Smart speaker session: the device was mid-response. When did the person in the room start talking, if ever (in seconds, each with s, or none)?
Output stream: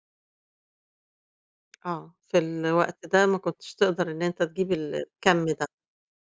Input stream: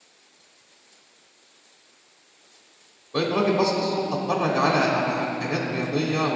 3.1 s